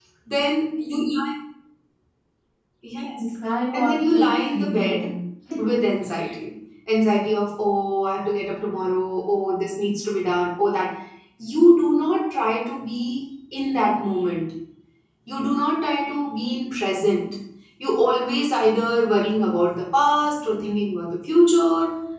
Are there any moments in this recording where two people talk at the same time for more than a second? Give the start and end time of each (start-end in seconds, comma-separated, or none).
3.7-5.1